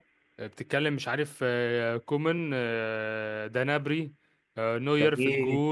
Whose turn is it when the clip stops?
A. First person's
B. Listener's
A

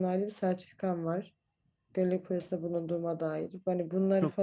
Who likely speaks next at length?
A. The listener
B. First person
B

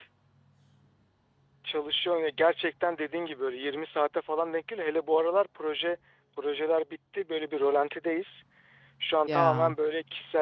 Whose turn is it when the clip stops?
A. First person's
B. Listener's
A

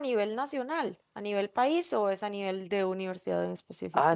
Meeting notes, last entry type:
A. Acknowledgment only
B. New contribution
B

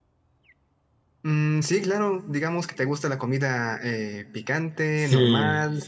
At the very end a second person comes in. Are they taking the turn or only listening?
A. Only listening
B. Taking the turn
B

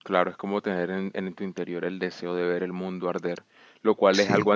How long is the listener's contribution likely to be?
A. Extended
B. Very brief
B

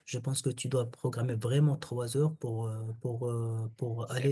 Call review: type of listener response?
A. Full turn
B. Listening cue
B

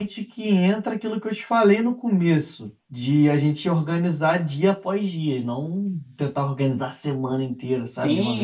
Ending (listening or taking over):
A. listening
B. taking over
B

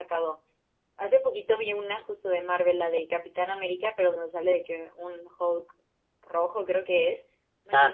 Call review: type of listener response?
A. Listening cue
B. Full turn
A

